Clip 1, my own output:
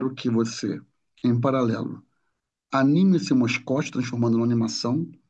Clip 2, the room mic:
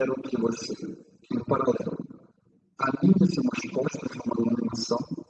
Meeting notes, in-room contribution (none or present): none